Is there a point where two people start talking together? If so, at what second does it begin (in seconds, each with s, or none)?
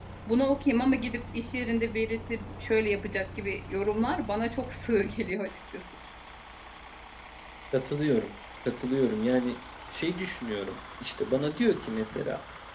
none